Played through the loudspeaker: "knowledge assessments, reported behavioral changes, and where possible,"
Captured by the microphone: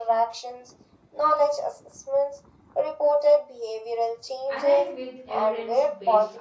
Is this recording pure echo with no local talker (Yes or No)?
No